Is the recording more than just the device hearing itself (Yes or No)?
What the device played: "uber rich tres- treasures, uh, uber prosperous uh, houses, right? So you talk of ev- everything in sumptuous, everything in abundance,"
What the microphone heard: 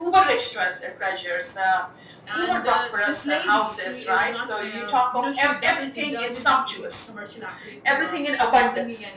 Yes